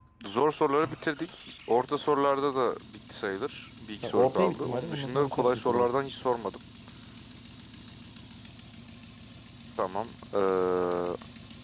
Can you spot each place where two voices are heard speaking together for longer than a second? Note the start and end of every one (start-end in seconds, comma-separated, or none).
4.0-5.9